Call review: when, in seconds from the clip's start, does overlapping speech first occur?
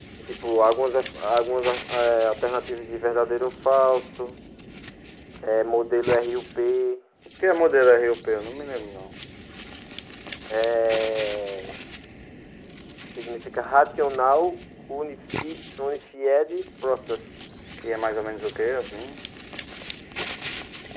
none

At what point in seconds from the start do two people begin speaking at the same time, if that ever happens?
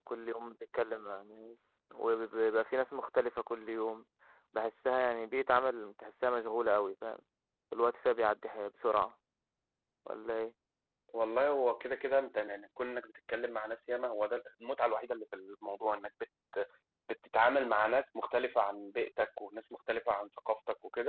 none

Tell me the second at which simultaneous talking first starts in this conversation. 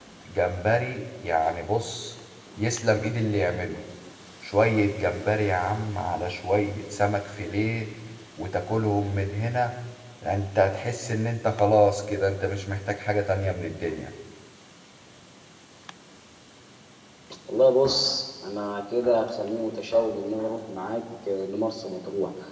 none

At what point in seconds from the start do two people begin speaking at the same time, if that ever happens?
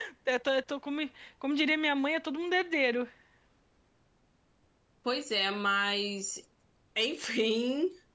none

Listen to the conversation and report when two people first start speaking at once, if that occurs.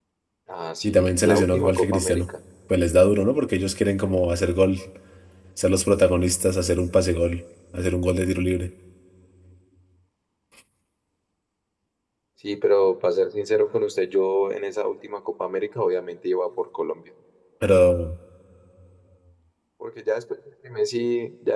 0.8 s

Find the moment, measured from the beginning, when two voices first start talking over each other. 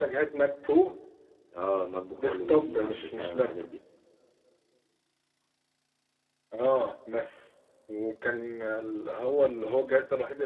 2.2 s

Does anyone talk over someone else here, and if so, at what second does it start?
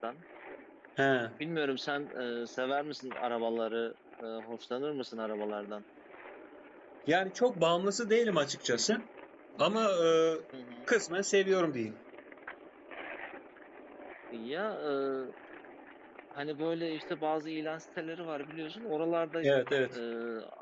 none

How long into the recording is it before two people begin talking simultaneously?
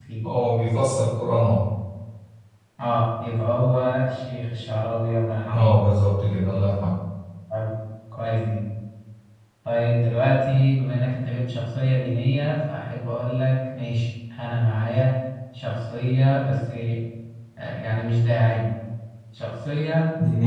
none

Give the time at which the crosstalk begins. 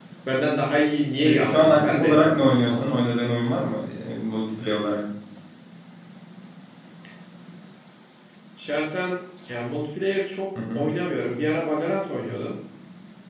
1.2 s

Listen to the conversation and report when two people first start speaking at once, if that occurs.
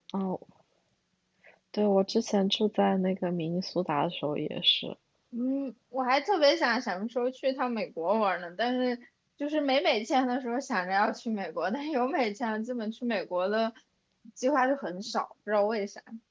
none

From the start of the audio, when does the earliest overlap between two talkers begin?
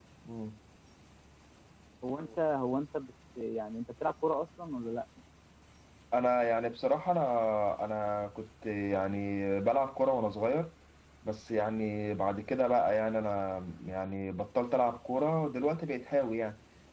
none

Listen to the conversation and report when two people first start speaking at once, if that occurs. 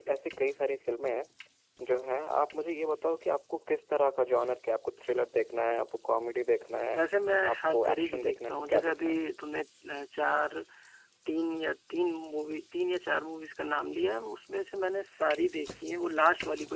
7.5 s

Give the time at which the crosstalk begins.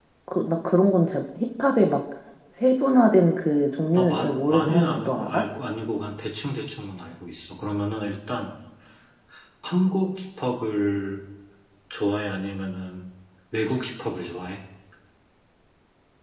3.9 s

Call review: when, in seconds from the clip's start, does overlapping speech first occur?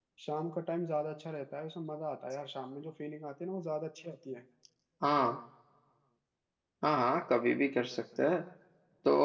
none

